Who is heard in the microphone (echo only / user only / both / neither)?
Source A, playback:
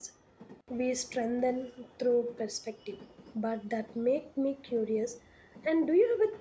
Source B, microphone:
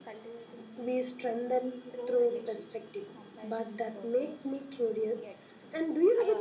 both